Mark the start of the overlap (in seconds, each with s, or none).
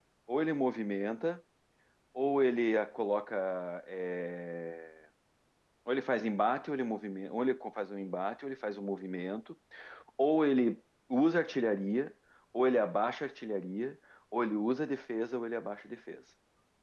none